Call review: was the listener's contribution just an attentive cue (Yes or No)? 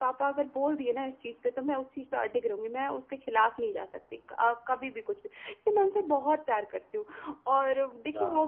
Yes